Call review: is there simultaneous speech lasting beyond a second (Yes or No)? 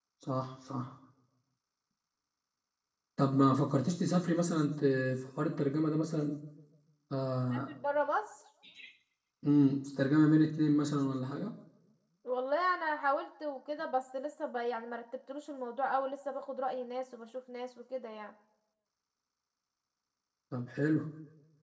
No